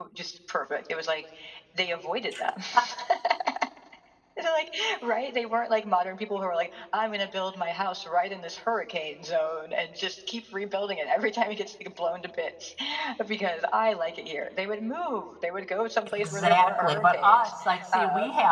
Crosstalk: present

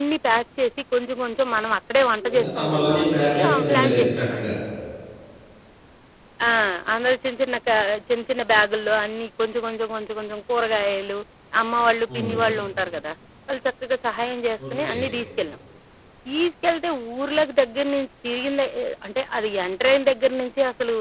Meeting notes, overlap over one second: present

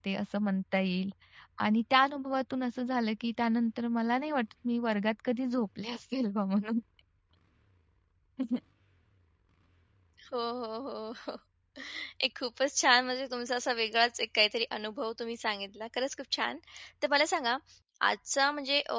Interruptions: none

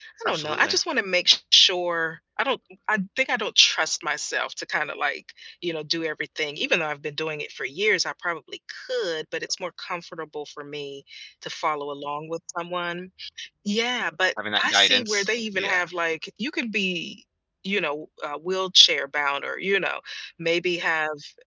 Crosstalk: present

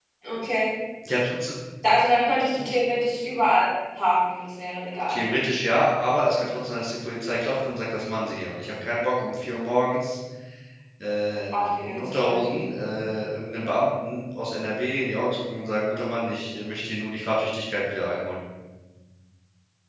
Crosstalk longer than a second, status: present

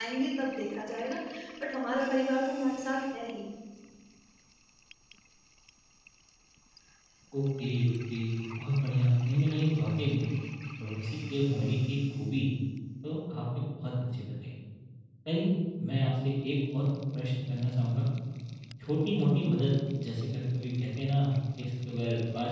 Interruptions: none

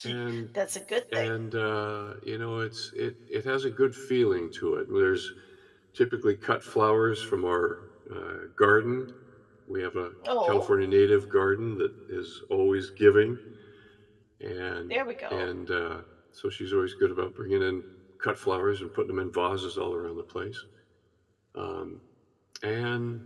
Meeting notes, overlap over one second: none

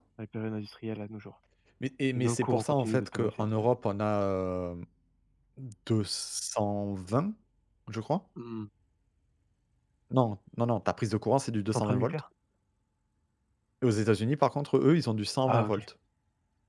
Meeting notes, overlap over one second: present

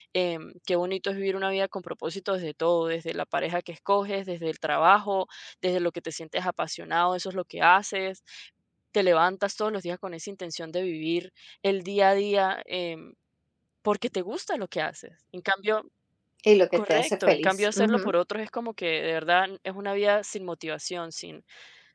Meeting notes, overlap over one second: present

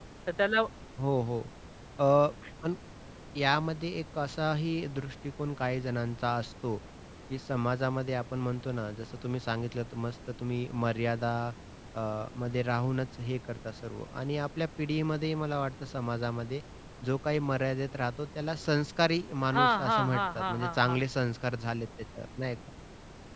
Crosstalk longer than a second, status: present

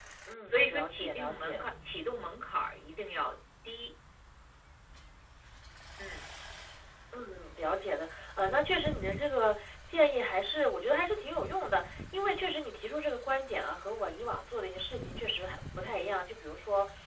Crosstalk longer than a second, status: present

